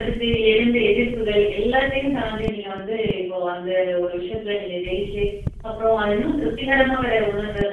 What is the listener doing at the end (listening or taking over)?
listening